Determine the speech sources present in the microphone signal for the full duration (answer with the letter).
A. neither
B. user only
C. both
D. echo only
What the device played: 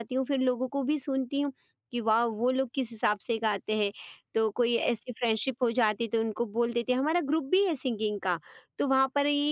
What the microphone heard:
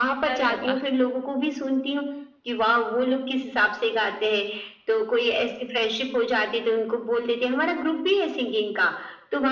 C